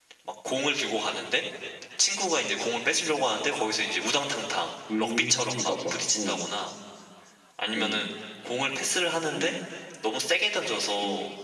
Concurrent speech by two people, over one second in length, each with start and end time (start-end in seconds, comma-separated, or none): 5.0-6.5